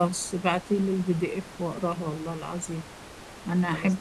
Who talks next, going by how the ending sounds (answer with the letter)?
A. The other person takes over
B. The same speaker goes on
B